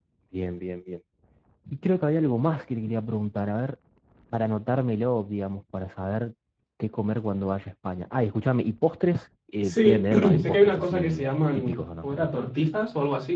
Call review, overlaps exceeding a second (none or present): present